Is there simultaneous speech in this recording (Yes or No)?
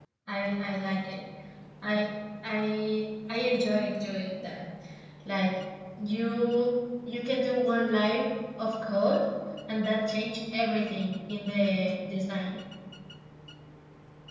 No